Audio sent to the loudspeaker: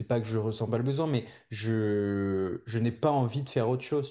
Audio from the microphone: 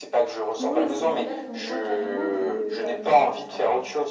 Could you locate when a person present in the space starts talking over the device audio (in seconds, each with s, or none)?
0.6 s